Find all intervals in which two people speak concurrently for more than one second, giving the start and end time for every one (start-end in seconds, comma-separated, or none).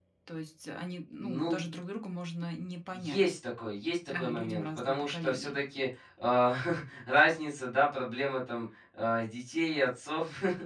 4.1-5.6